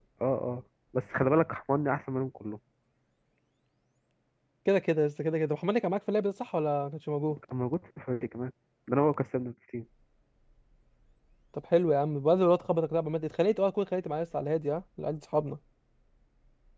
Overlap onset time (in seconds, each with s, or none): none